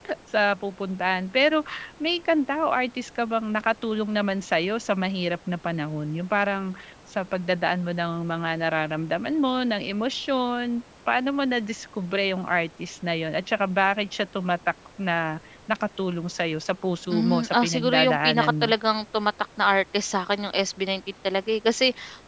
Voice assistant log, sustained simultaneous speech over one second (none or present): present